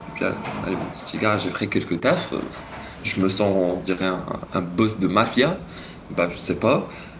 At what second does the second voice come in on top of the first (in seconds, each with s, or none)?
none